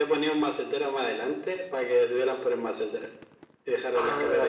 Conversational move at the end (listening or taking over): taking over